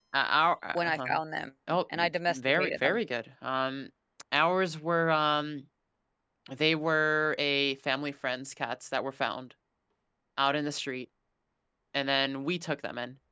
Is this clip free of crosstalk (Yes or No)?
No